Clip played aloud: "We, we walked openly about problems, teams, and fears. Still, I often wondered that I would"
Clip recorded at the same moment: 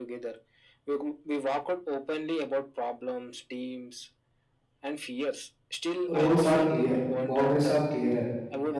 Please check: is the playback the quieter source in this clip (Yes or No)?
Yes